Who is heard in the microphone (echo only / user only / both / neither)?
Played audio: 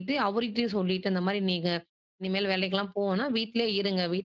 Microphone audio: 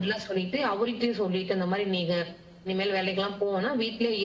echo only